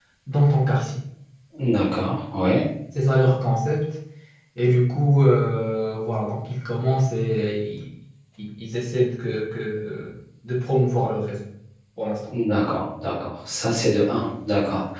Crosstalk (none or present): none